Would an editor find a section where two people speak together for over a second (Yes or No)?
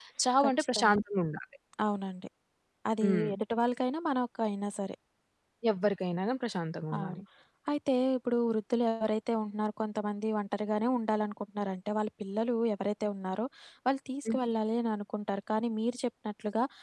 No